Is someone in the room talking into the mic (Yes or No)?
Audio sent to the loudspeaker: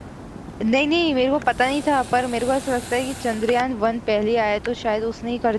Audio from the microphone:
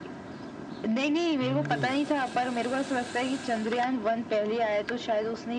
Yes